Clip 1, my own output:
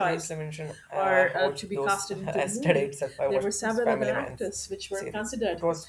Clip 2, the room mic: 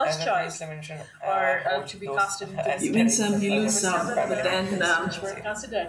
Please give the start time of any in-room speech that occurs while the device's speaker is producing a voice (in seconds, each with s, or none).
2.8 s